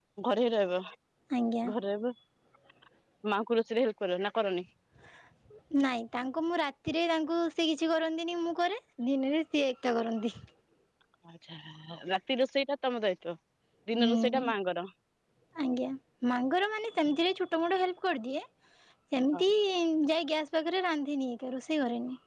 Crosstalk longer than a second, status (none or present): none